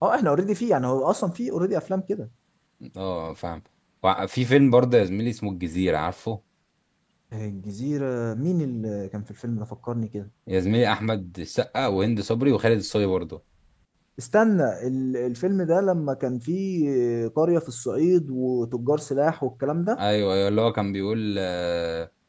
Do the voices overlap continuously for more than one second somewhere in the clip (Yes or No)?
No